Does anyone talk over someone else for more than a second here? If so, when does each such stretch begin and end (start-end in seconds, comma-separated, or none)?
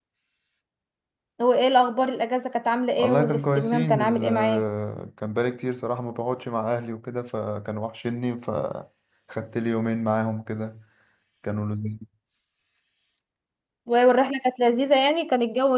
3.0-4.6